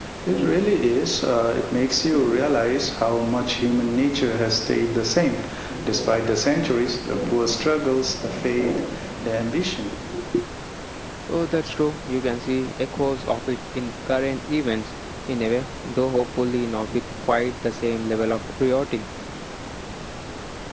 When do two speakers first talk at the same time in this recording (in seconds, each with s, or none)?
none